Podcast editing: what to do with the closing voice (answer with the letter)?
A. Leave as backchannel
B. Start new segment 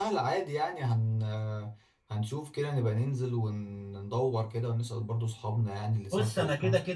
B